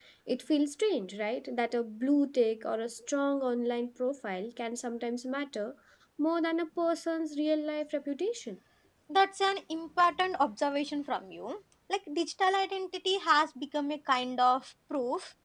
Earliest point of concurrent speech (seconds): none

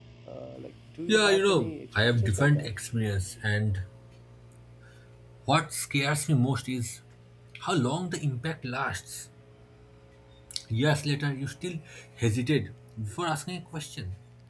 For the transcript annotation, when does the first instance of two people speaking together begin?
1 s

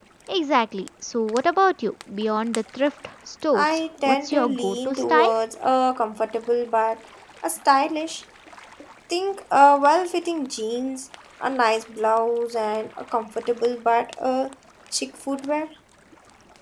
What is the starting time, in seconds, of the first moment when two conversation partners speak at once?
4 s

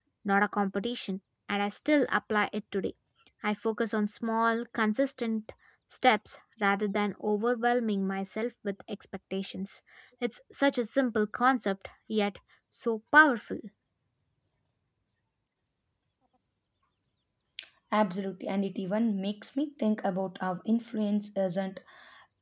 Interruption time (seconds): none

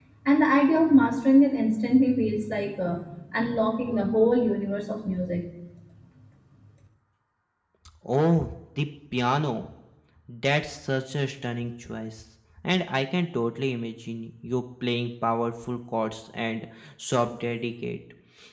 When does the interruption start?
none

